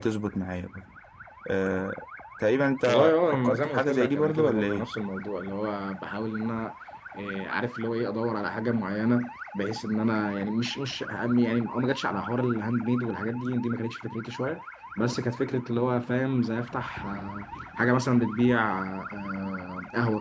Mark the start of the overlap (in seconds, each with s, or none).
2.8 s